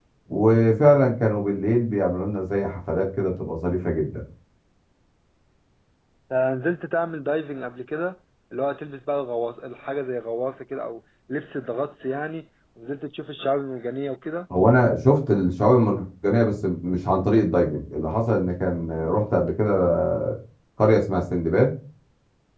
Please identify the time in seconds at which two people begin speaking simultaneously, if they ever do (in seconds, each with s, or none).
none